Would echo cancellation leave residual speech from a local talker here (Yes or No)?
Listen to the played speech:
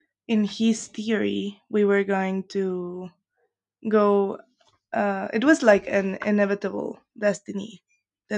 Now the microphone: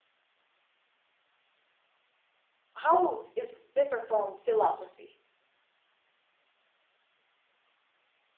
Yes